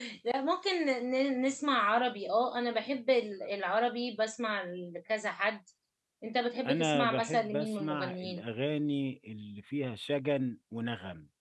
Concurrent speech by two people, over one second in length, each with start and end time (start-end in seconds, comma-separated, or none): 6.7-8.4